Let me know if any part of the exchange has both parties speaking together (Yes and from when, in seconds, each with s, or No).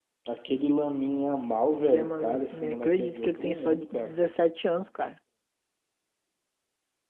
Yes, from 1.7 s